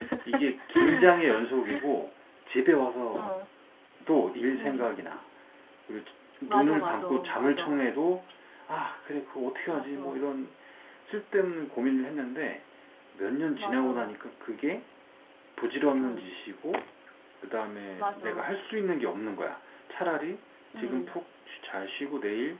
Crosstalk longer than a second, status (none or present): present